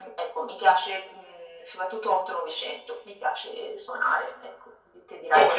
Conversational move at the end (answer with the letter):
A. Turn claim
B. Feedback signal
B